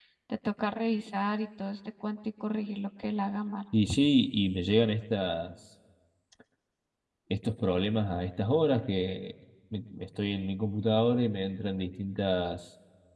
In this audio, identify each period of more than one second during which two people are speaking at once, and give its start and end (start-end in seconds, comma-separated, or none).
none